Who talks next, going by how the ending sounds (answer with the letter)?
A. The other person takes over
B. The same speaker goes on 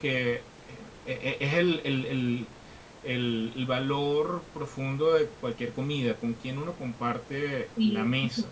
A